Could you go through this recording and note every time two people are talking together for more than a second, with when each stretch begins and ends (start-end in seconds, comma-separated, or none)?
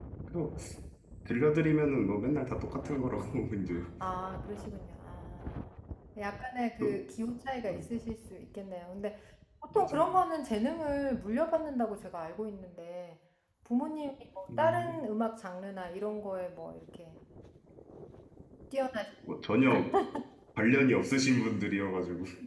none